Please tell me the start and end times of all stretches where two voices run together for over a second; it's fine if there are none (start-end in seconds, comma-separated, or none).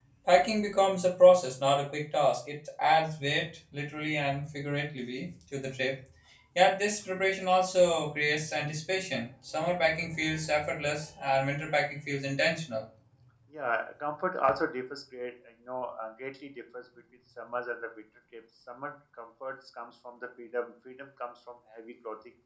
none